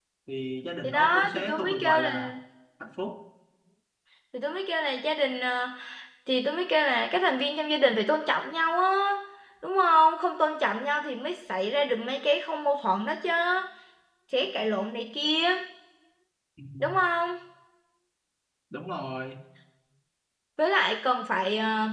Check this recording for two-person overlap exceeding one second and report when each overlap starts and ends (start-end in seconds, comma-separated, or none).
0.8-2.3